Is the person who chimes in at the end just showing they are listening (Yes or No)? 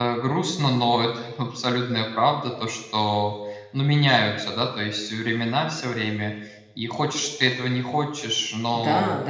No